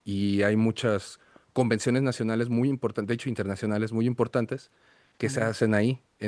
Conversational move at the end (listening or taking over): listening